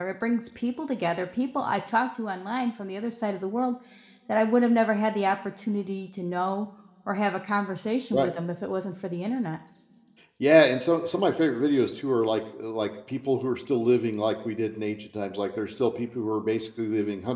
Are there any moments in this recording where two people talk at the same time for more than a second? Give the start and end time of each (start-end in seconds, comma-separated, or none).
none